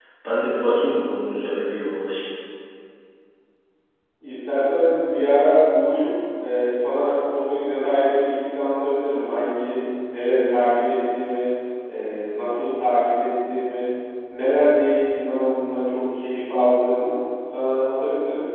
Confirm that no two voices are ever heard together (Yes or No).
Yes